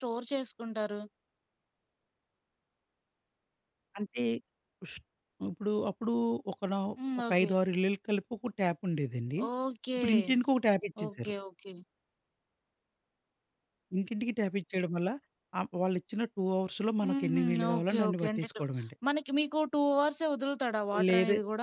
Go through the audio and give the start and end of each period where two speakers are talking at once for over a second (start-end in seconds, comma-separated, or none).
17.0-18.5